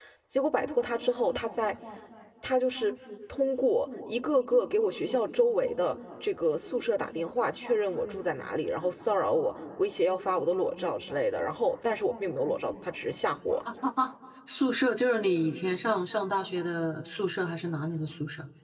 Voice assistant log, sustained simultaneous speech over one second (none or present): none